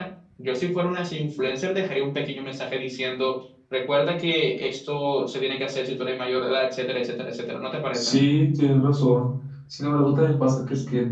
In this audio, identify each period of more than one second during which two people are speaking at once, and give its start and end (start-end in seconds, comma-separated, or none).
none